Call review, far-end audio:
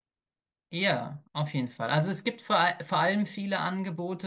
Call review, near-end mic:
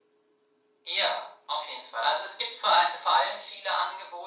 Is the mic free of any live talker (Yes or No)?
Yes